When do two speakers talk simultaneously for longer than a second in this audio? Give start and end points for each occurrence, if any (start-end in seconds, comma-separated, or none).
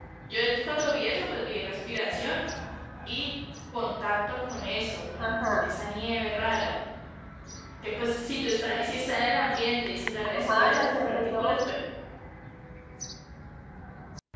10.3-11.6